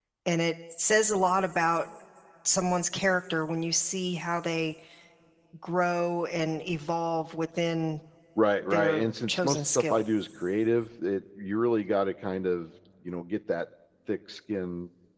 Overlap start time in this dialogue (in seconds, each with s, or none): 8.7 s